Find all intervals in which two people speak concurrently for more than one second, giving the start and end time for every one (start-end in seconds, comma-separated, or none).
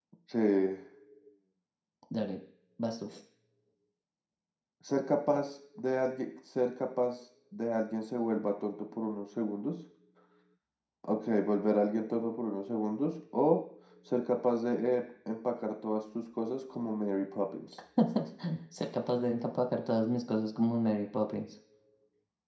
none